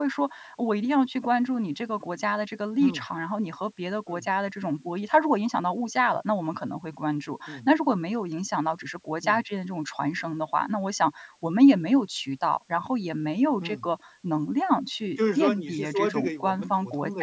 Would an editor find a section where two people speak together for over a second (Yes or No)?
Yes